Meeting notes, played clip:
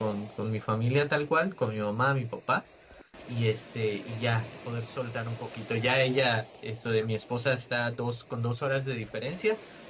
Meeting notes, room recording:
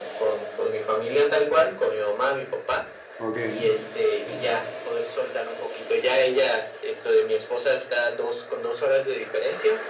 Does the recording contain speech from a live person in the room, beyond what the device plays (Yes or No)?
Yes